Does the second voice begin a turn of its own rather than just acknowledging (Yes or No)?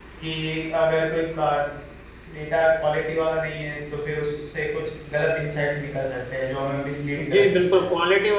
Yes